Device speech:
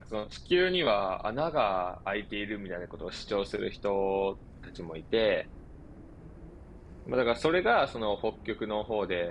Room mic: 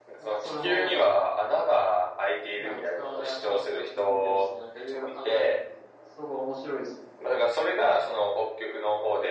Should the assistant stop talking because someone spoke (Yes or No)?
Yes